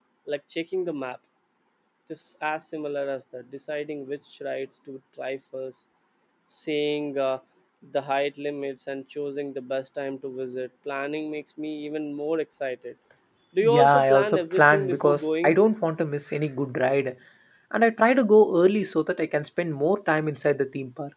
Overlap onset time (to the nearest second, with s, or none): 14 s